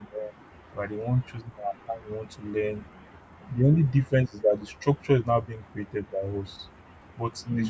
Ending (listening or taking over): listening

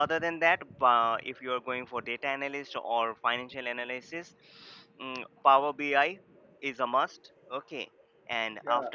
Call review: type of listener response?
taking over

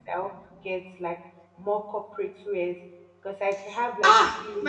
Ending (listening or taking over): taking over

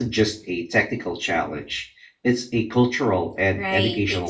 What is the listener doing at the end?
taking over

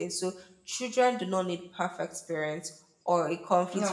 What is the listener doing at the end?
listening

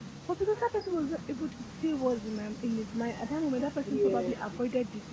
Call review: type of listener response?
listening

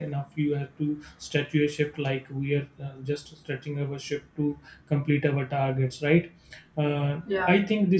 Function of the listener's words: listening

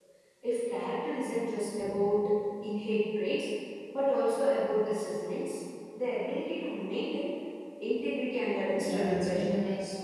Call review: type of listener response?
taking over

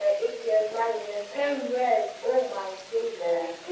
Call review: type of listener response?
listening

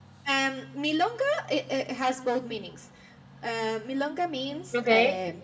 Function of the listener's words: listening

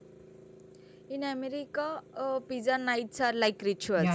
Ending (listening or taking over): taking over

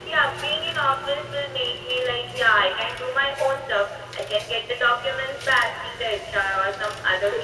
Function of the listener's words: taking over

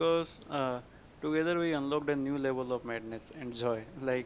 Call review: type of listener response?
listening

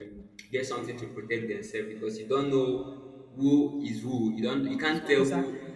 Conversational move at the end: listening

